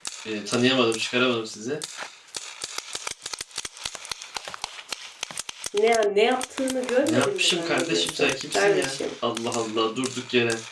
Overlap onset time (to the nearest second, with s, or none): 7 s